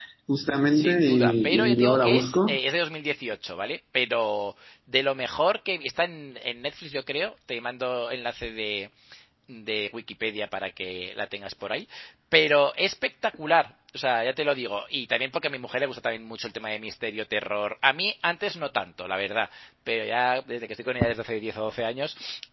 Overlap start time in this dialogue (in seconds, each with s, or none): 0.7 s